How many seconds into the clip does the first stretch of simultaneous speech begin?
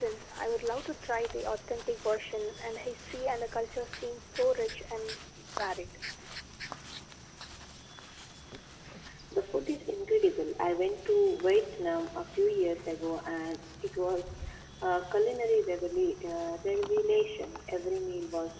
none

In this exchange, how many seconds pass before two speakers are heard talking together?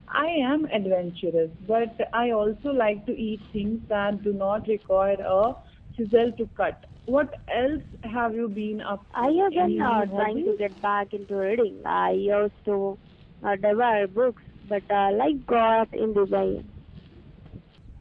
9 s

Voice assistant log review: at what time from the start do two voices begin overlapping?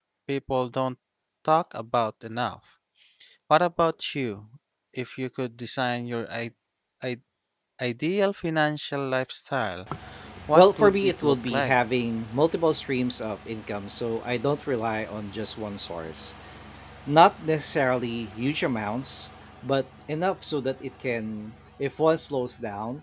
11 s

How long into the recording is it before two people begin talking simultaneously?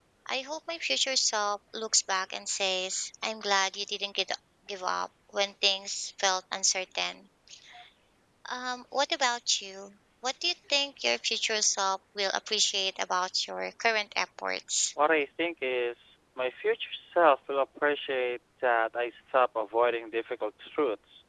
none

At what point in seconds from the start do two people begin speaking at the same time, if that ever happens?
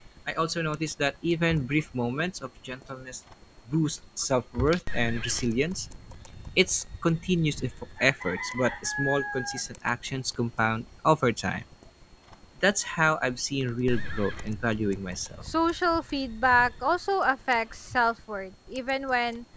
none

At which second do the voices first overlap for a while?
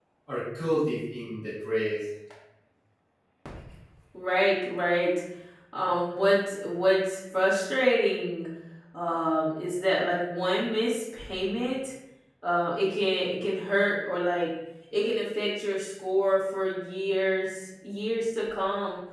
none

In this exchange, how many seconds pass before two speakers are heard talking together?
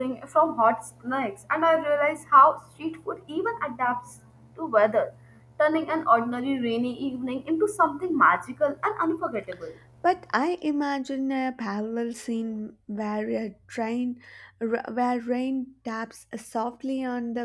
none

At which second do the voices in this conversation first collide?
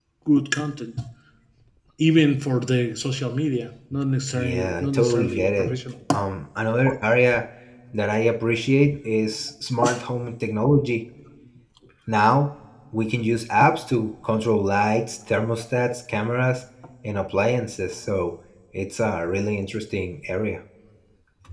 4 s

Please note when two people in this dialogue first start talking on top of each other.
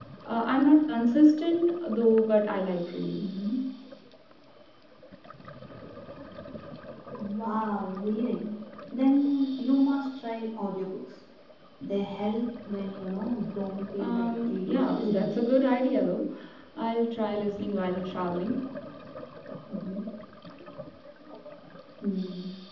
14 s

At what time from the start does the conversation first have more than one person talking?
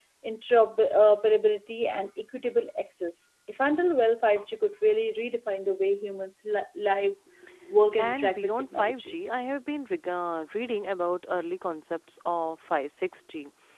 8 s

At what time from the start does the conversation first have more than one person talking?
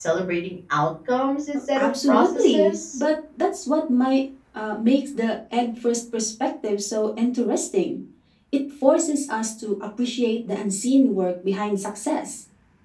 2 s

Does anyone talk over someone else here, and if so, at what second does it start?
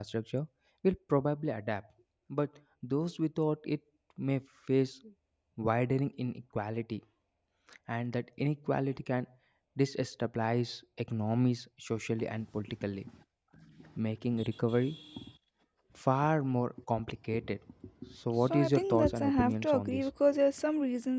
18 s

